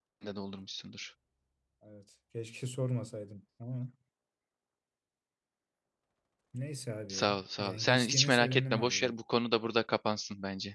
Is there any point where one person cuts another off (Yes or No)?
Yes